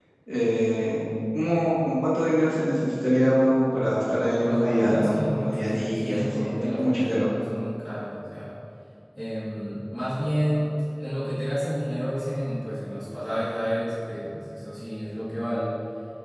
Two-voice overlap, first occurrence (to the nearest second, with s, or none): 4 s